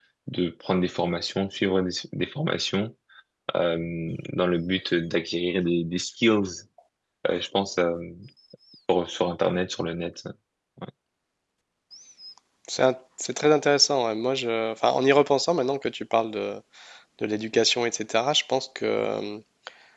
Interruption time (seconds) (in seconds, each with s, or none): none